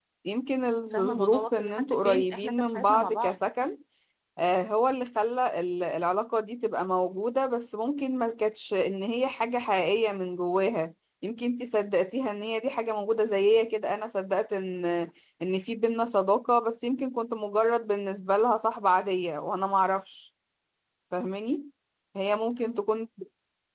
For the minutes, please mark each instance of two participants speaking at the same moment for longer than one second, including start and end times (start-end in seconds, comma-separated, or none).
0.9-3.4